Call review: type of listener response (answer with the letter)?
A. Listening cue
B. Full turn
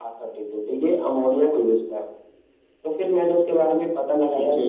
A